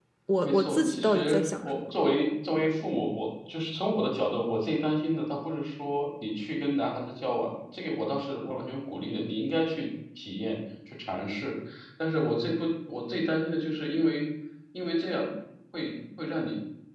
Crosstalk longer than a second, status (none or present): present